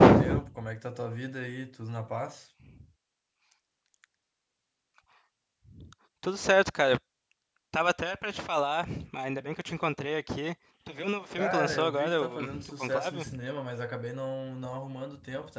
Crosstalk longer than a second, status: present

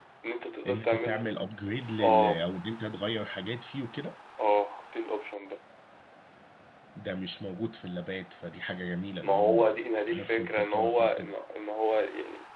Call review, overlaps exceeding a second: present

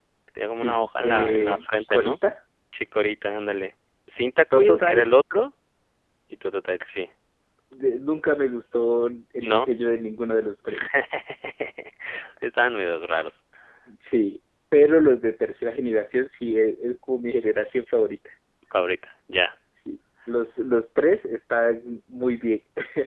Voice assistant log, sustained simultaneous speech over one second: present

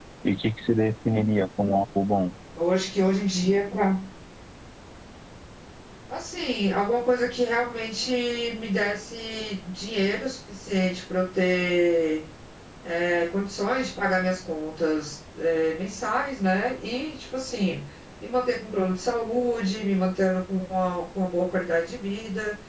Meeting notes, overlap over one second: none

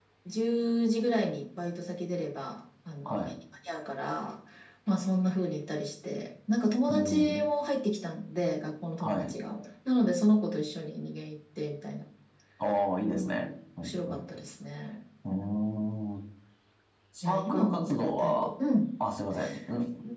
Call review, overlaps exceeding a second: present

